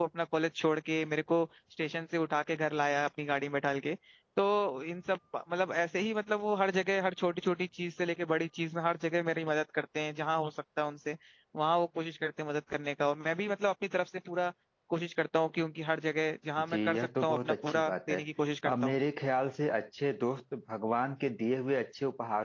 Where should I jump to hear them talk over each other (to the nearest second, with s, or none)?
17 s